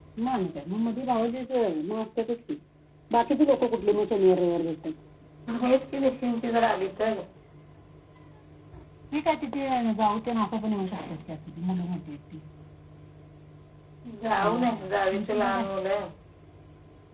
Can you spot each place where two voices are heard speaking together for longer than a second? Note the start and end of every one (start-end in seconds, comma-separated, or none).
14.4-15.7